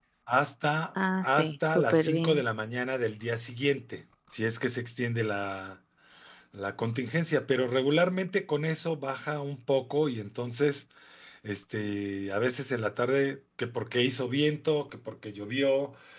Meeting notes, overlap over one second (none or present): present